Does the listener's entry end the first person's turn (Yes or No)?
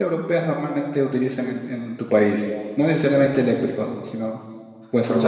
Yes